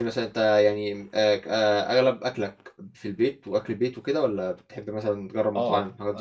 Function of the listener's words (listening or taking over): taking over